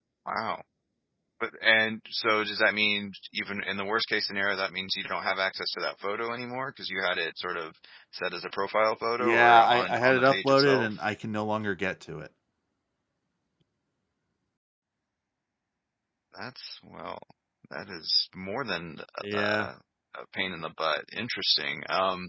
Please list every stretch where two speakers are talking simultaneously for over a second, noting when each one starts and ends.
9.2-10.9

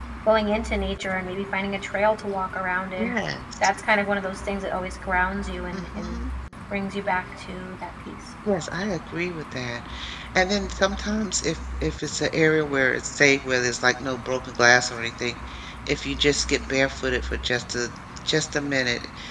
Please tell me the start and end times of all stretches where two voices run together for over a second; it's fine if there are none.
none

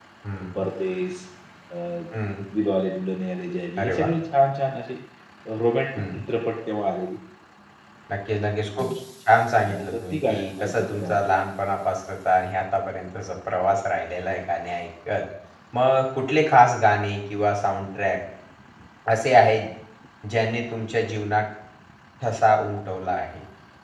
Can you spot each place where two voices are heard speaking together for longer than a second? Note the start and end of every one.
9.6-11.2

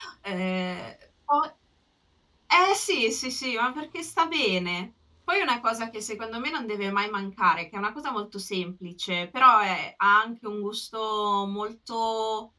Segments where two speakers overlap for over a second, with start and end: none

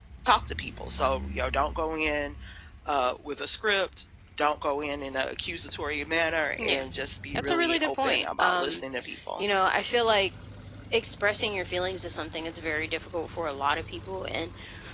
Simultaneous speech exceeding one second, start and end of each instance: 7.3-8.8

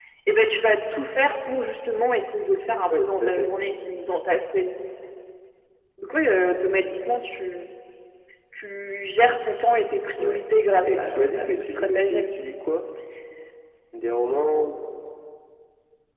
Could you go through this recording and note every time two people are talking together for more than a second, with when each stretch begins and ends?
10.8-12.3

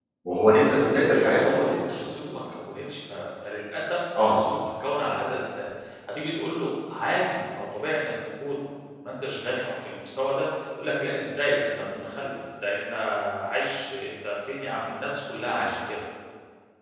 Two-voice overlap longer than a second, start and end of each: none

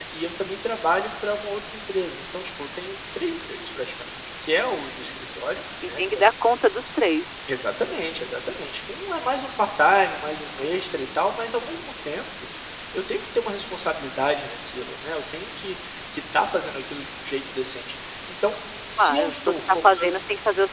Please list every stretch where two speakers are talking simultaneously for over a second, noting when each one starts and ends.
19.0-20.2

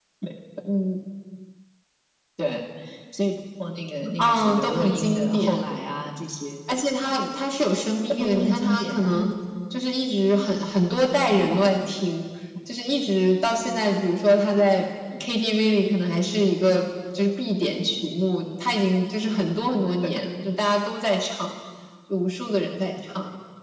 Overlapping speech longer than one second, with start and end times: 4.2-5.6, 8.1-9.3

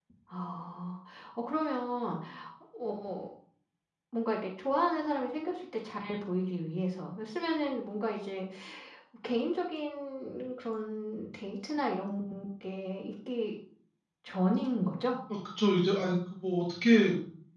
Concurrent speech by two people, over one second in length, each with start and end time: none

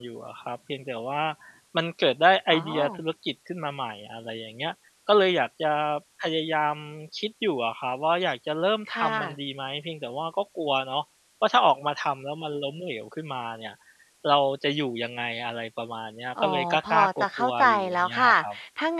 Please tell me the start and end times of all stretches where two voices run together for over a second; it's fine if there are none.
16.4-18.3

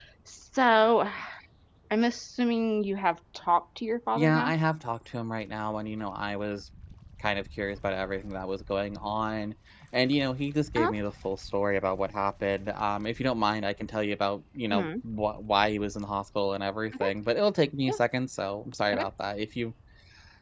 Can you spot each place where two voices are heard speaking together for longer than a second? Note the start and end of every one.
none

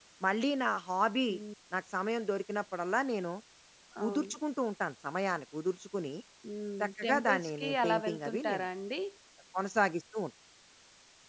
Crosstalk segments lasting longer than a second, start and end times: 6.8-8.6

